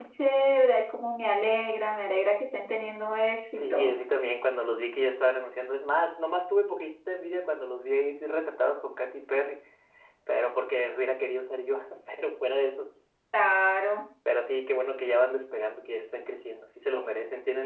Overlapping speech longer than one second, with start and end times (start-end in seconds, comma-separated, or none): none